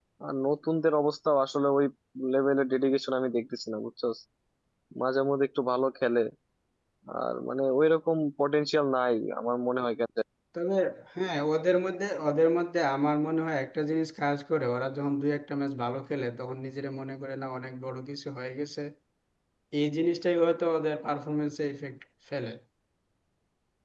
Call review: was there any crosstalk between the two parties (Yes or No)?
No